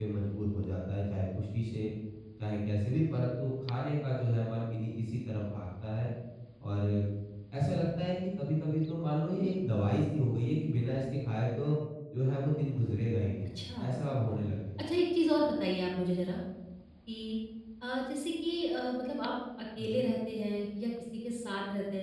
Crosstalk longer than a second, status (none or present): none